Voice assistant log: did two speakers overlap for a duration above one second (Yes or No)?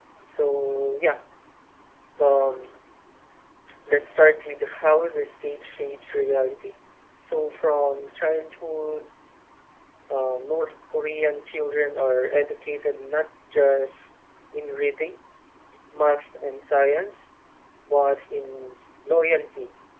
No